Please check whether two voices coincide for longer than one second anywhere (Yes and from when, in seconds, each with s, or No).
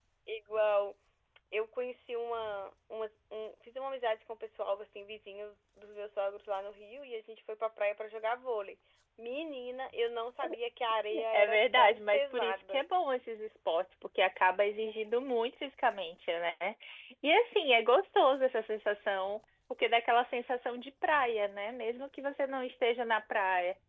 Yes, from 11.3 s